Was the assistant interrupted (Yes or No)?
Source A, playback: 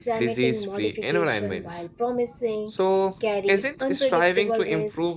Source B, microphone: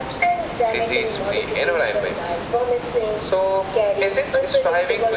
No